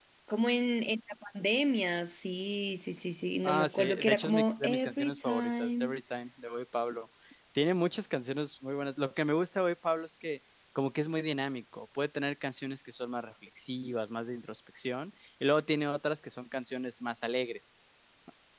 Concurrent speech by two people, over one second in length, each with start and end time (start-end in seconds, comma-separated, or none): 3.5-5.9